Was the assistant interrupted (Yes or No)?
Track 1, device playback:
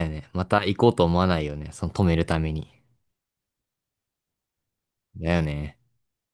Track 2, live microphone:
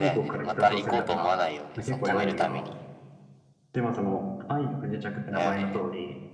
Yes